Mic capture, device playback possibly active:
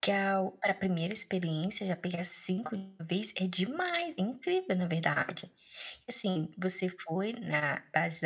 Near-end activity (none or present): present